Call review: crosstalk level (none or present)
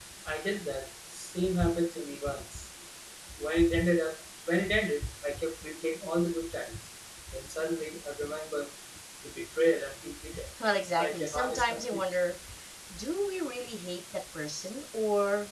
present